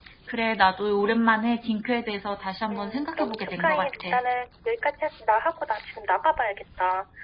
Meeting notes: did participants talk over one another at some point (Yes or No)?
Yes